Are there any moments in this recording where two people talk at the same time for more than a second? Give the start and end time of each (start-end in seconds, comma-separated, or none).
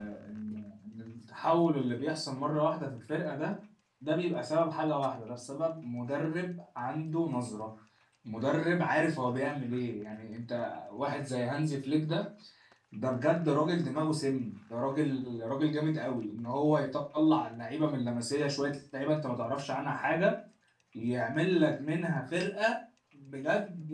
none